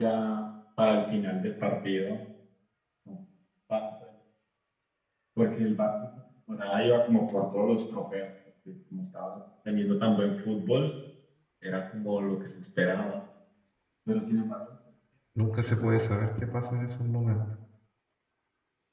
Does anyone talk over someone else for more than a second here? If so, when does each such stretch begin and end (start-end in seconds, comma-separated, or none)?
none